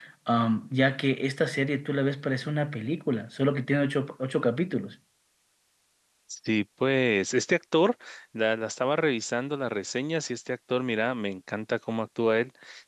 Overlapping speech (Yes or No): No